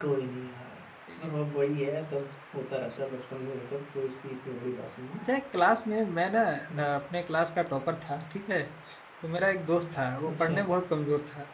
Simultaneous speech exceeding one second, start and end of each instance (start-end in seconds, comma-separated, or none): none